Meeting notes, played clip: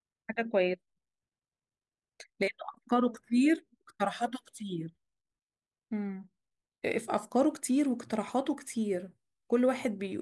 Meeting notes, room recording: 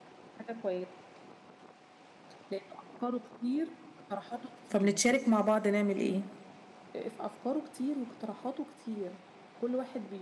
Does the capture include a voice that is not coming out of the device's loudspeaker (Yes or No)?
Yes